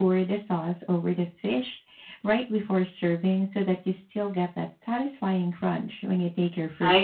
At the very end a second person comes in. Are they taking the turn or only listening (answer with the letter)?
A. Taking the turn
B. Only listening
A